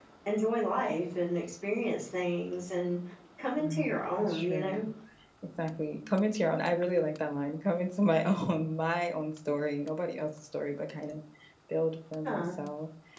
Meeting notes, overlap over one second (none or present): present